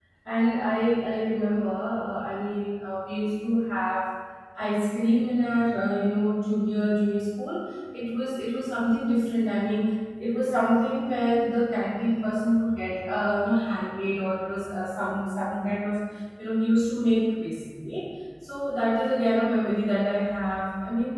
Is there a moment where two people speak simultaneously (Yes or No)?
No